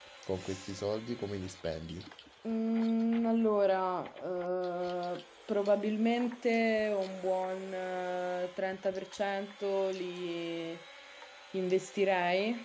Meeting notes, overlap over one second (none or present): none